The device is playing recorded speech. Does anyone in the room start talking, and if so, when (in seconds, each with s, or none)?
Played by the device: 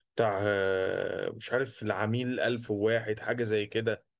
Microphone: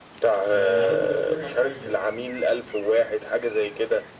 0.5 s